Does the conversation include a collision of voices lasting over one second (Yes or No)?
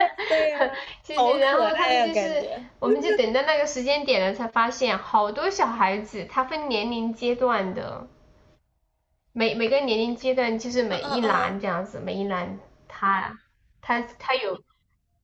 Yes